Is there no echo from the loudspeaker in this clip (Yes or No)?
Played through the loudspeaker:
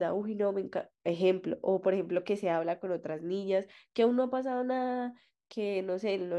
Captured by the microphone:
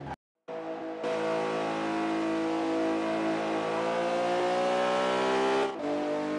Yes